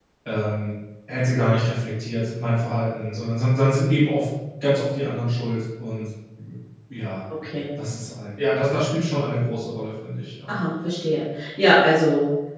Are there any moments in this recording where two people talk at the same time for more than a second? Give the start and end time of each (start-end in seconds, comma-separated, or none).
none